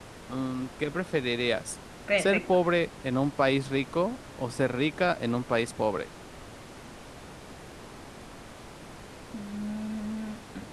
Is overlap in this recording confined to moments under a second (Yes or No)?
Yes